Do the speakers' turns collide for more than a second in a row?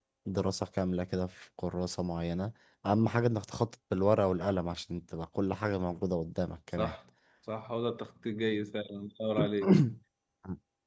No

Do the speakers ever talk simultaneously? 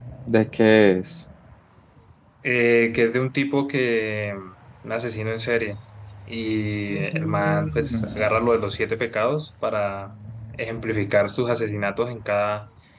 Yes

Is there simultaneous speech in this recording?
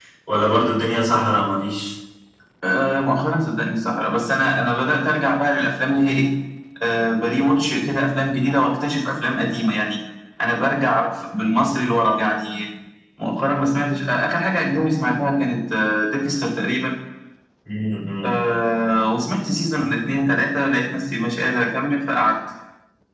No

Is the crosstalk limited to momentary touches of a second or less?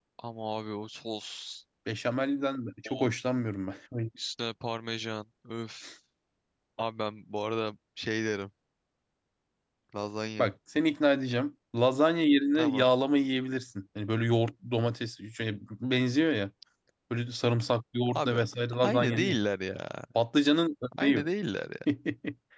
Yes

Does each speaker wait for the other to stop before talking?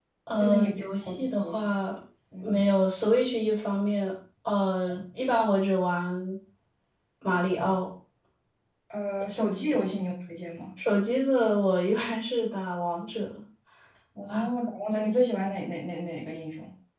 No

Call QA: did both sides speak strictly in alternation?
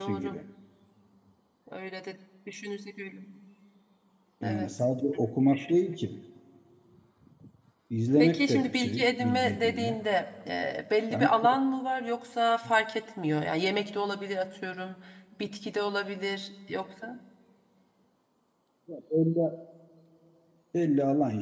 No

